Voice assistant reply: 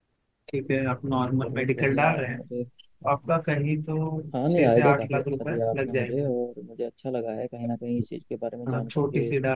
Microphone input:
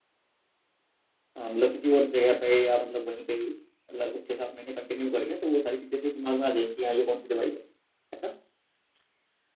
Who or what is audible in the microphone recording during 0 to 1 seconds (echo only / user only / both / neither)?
neither